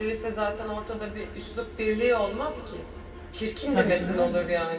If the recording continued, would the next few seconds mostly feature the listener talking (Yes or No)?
No